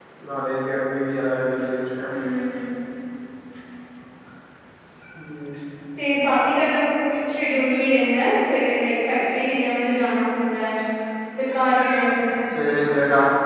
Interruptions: none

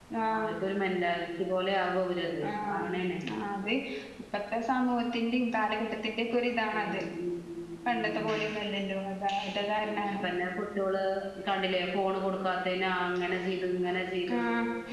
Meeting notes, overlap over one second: none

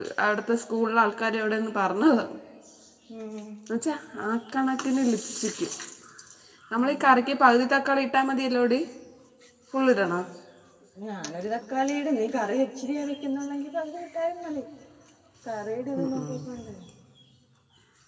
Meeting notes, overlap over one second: none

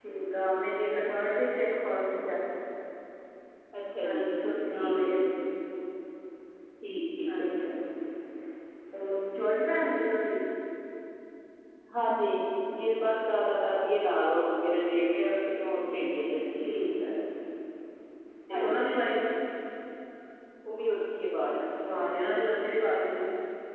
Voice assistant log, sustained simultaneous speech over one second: none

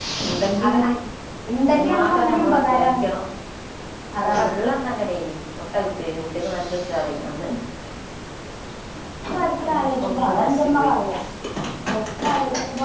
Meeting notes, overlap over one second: present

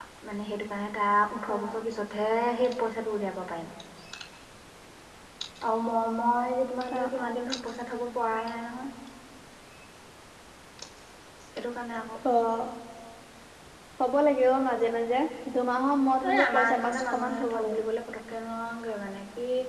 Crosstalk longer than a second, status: present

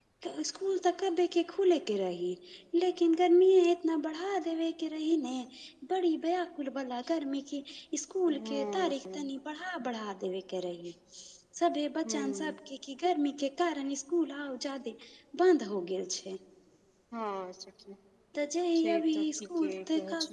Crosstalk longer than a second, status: present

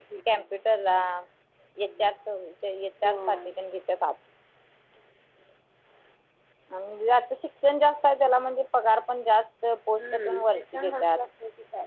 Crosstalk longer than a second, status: present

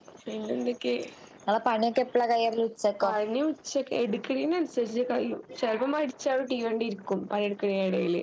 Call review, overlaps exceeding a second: none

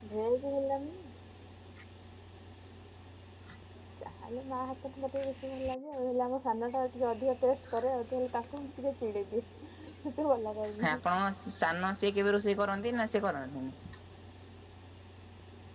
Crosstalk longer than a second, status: none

